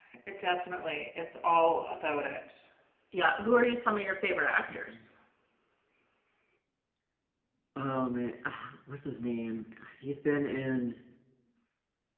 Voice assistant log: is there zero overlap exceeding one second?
Yes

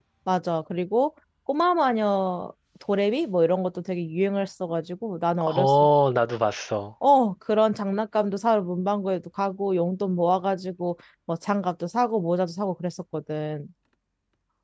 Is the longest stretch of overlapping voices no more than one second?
Yes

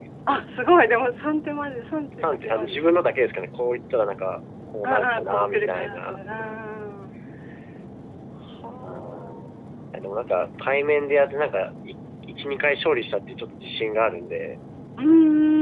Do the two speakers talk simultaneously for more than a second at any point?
Yes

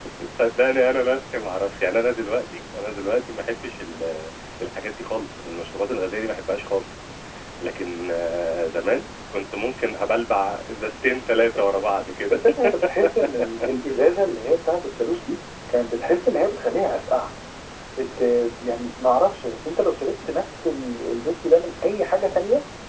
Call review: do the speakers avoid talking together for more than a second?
Yes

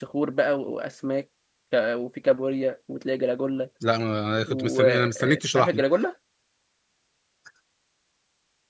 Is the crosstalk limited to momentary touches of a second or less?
No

